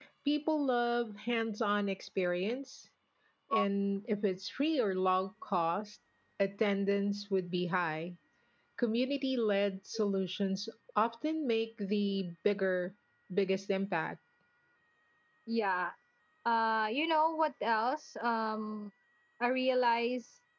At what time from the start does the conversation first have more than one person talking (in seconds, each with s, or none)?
none